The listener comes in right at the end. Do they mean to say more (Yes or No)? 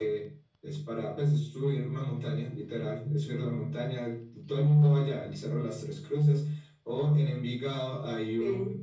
No